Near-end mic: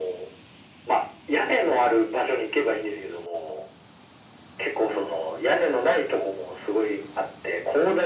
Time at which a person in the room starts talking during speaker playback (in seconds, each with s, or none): none